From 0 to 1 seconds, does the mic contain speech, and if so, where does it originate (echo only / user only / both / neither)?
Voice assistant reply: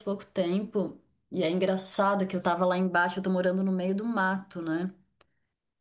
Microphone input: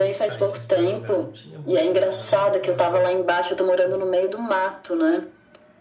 both